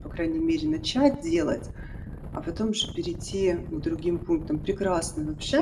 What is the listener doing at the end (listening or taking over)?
taking over